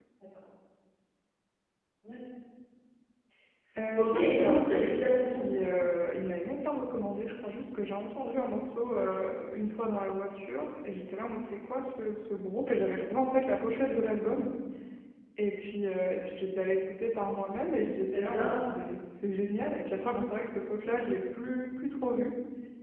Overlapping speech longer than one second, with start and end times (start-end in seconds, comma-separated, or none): 4.0-5.4